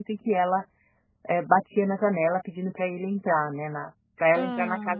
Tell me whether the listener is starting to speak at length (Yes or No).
No